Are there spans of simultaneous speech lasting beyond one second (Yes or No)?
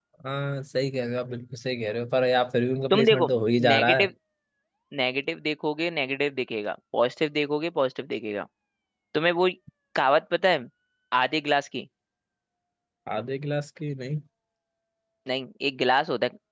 No